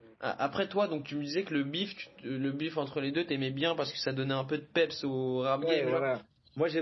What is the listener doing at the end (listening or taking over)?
taking over